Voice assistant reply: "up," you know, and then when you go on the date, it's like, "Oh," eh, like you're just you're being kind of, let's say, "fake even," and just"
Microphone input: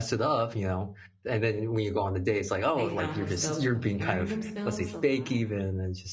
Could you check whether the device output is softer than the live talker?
No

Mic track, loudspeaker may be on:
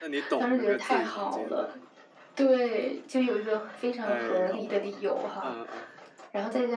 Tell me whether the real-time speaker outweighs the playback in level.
No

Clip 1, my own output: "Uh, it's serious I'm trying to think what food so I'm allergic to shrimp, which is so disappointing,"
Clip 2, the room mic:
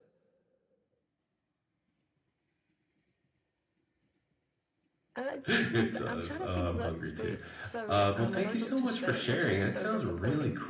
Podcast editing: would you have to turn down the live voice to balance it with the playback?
Yes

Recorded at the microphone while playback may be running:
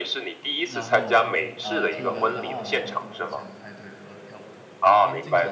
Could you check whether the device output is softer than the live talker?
No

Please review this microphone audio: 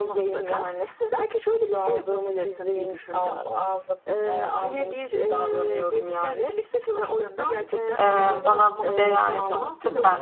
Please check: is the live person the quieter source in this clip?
No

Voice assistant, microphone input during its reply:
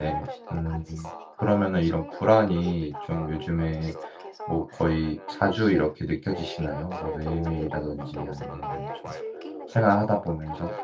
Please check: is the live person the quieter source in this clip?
No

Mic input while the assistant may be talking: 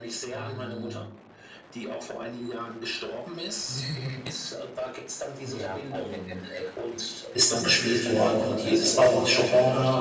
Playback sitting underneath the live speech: Yes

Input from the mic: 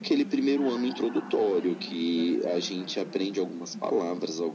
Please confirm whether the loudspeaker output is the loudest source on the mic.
Yes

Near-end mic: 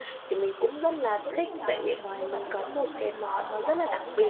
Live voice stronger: No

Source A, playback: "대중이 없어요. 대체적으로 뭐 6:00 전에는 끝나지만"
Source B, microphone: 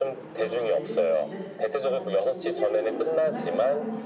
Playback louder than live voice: Yes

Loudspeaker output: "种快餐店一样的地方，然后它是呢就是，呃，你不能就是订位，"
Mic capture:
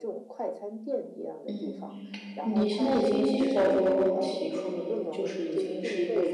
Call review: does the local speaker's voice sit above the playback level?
Yes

